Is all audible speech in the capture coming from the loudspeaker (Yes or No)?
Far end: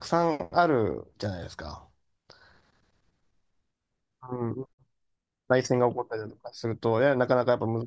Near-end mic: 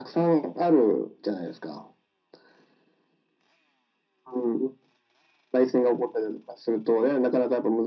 Yes